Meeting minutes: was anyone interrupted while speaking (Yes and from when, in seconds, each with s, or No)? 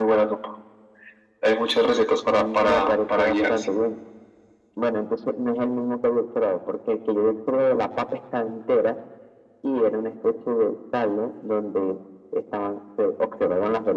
Yes, from 2.3 s